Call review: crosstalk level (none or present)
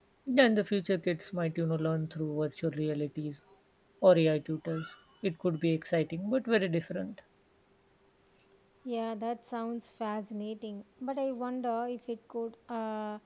none